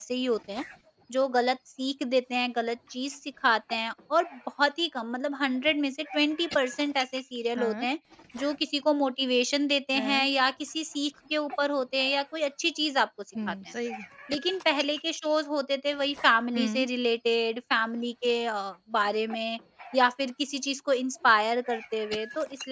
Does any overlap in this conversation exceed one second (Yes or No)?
No